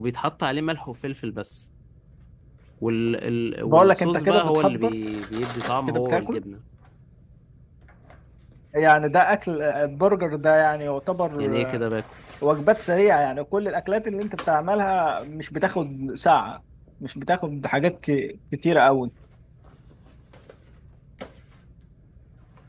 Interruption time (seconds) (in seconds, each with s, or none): 3.6 s